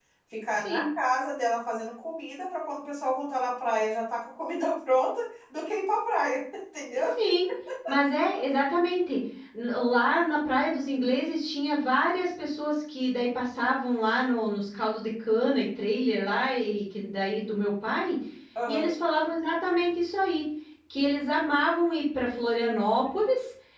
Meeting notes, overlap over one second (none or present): none